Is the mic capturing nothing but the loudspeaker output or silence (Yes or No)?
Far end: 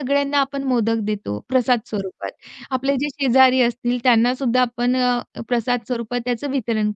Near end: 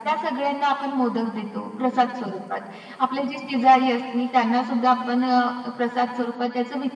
Yes